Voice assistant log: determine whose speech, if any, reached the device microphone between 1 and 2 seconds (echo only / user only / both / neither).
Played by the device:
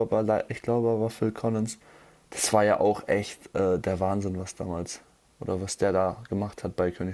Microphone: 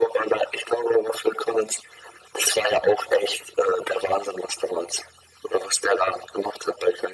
echo only